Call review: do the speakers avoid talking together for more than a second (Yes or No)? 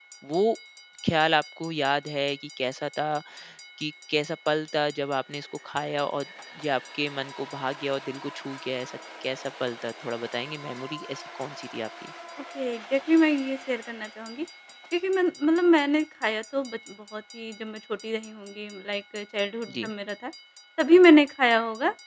Yes